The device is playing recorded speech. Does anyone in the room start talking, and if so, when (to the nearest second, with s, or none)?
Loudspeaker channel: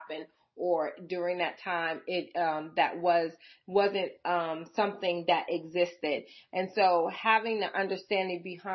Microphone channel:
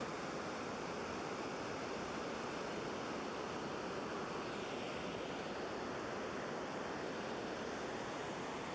none